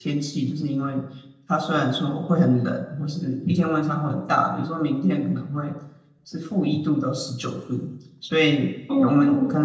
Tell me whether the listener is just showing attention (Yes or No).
Yes